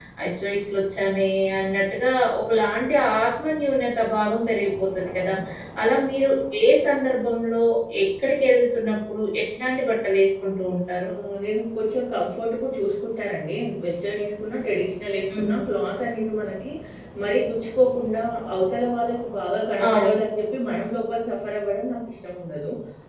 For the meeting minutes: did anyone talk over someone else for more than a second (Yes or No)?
No